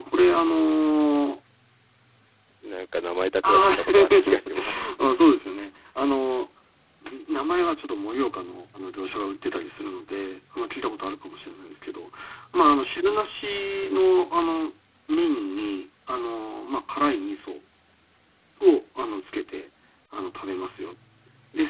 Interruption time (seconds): 3 s

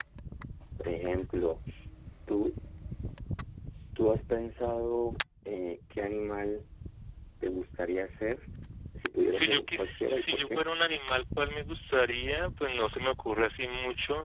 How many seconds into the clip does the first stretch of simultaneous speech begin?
9 s

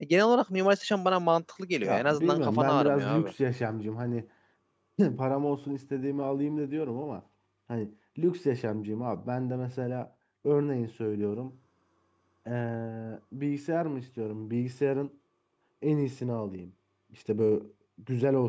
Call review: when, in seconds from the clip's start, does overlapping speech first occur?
2 s

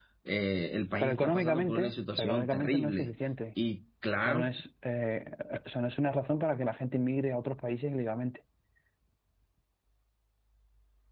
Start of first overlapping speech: 1 s

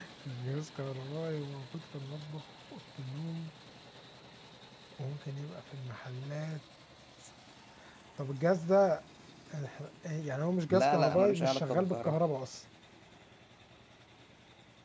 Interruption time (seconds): 11 s

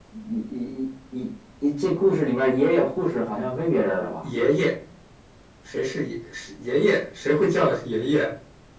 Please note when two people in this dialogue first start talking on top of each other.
none

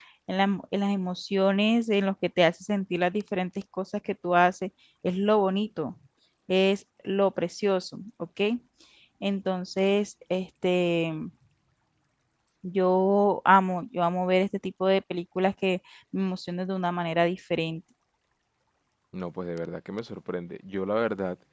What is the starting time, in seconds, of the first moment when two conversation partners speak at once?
none

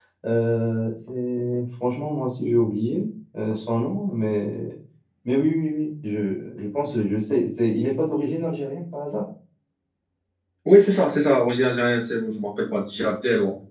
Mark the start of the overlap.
none

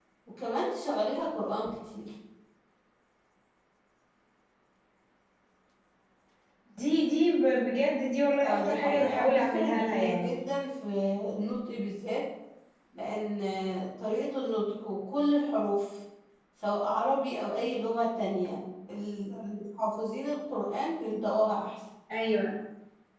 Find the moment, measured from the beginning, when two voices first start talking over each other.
8 s

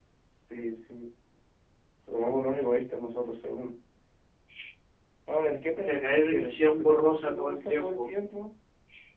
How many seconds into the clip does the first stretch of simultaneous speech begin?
6 s

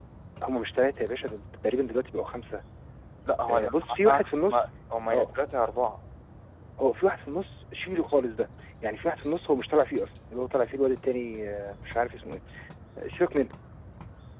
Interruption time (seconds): 3 s

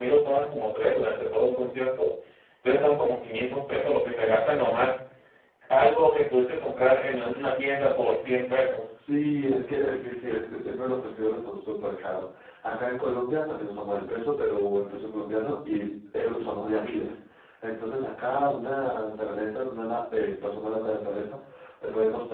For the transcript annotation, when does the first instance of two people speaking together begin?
none

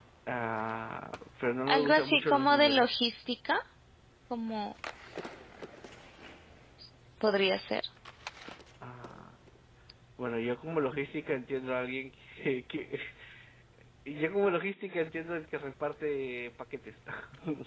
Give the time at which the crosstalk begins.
2 s

